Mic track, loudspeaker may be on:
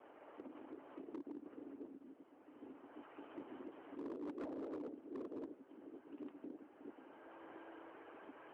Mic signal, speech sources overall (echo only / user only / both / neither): neither